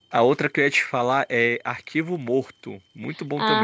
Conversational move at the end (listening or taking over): taking over